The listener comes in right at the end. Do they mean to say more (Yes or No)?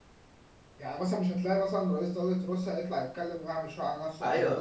Yes